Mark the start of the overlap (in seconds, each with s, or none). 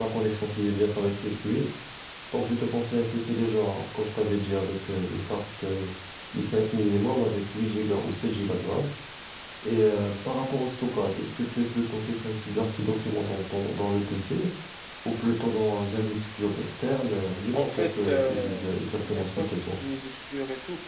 17.5 s